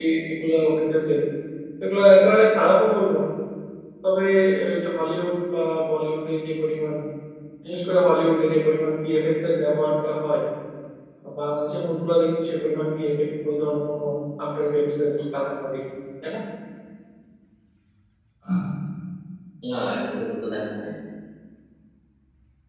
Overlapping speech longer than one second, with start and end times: none

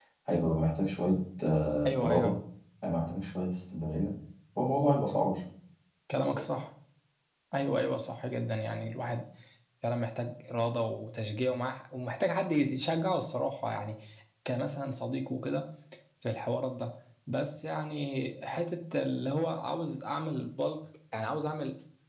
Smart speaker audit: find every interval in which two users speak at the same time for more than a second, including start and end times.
none

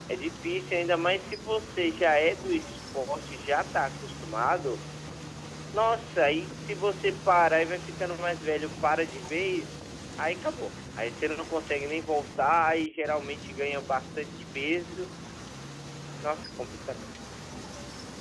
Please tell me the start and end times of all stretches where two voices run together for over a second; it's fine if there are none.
none

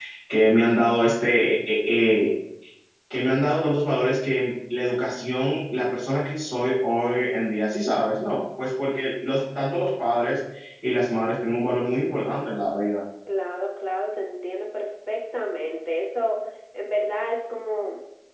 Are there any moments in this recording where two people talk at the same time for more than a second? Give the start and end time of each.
none

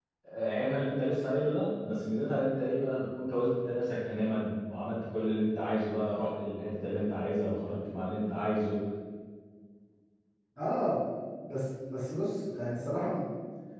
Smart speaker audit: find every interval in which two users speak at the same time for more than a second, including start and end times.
none

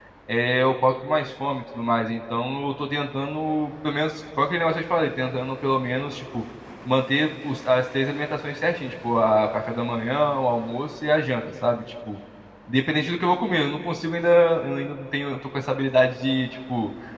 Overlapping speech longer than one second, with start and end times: none

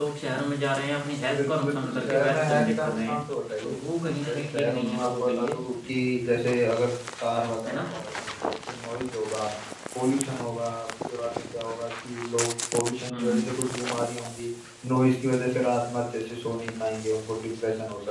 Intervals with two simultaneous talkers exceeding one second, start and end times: 1.4-3.2, 4.3-5.6

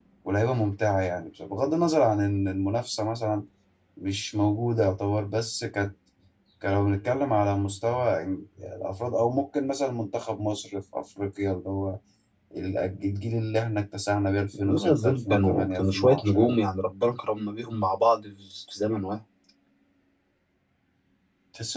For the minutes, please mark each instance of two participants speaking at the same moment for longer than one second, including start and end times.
14.6-16.6

